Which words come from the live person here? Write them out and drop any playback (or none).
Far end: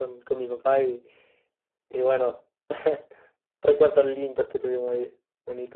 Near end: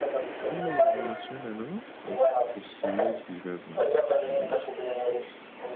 Uy, eh, me suena, ¿no? Las posibles vidas, no, no sé, creo que no.